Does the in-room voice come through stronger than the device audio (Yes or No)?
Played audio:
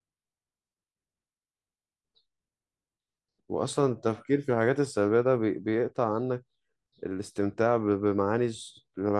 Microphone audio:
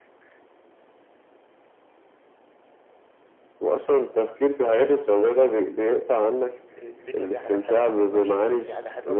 No